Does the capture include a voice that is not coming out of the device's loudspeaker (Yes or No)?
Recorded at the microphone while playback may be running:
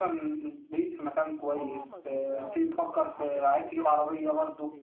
Yes